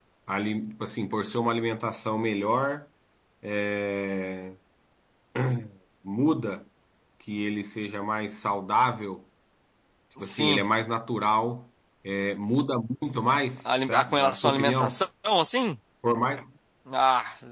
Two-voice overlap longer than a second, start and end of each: 13.6-15.0

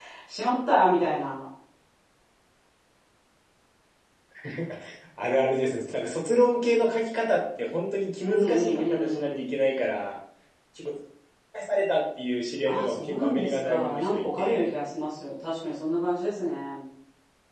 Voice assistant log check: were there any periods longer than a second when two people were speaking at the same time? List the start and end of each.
8.2-9.4, 12.7-14.7

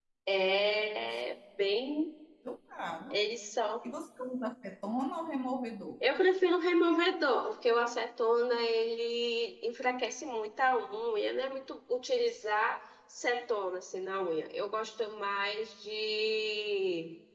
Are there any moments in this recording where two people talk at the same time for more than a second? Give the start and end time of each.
none

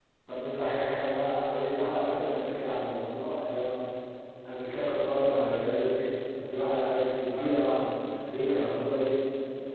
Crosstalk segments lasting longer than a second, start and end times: 1.3-2.6

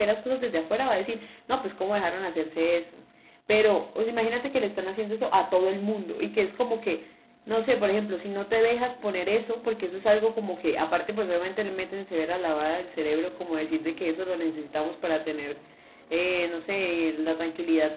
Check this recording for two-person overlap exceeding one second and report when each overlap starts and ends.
none

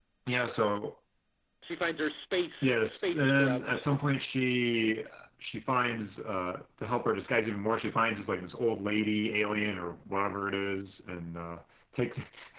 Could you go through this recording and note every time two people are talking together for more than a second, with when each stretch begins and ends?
2.6-3.8

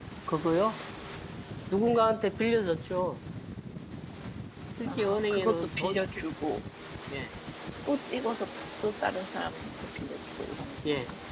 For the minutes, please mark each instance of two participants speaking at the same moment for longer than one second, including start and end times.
4.8-6.1

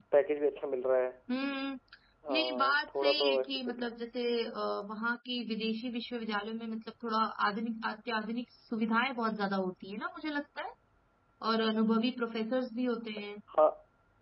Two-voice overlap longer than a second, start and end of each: 2.3-3.9

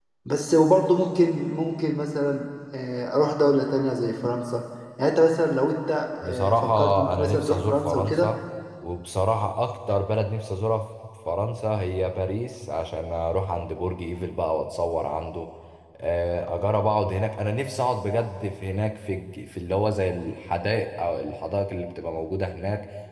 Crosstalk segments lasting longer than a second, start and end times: 6.2-8.3

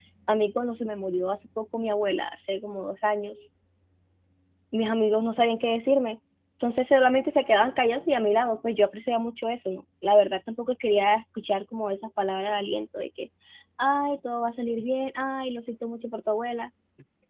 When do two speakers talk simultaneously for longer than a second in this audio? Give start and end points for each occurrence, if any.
none

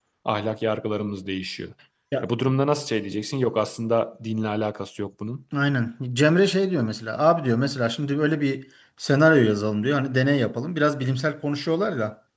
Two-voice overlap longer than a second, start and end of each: none

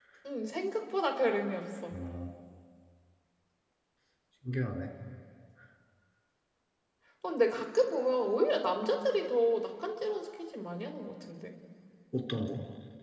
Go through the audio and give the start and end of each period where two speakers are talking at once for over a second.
none

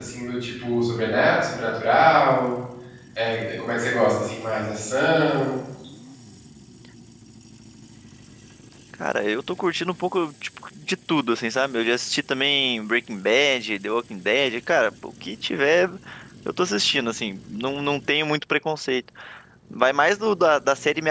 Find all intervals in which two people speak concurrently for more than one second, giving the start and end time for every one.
none

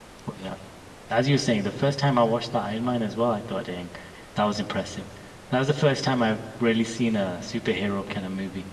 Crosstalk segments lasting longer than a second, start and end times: none

